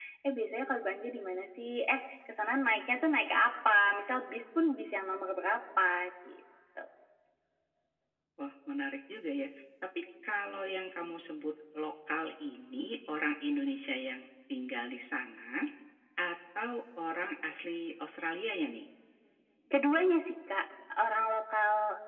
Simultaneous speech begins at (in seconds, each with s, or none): none